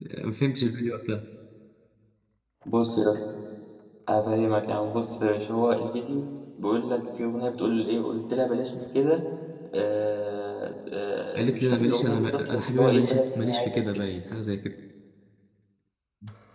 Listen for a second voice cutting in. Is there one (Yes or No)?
Yes